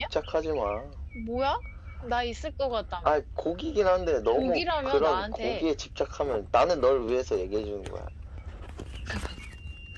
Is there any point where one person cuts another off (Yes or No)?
Yes